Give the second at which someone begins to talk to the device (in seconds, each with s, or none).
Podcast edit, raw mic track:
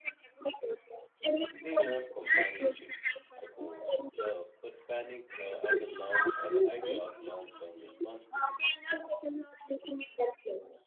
1.5 s